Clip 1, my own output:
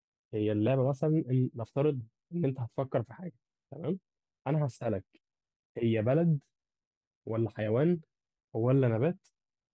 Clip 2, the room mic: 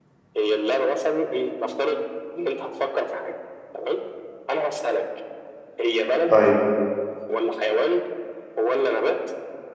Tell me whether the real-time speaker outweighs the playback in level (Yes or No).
Yes